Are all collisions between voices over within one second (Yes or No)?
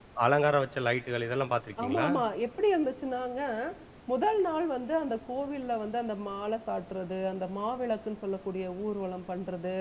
Yes